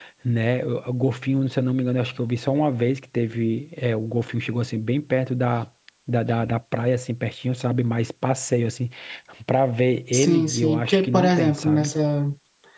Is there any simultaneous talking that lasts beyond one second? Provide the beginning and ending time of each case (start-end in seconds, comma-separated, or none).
10.1-11.9